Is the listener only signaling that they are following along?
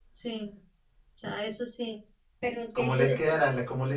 No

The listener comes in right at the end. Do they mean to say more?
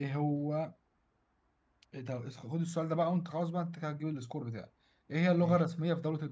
No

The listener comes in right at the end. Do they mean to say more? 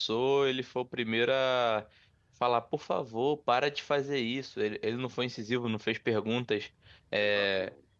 No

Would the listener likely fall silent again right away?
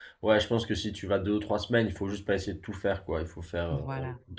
Yes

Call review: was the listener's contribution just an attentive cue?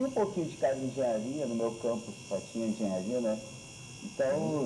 Yes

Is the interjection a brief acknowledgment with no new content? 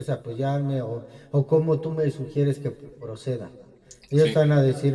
Yes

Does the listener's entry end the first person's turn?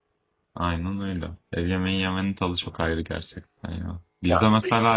No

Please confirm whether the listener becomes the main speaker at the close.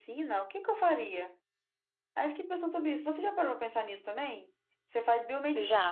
No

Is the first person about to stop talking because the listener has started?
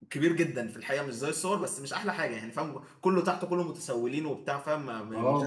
Yes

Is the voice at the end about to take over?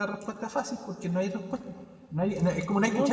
No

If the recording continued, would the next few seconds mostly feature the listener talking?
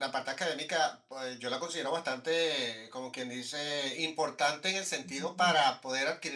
No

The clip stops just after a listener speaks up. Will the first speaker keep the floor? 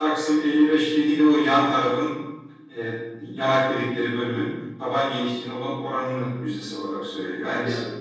No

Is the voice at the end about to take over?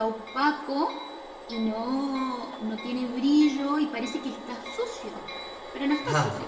Yes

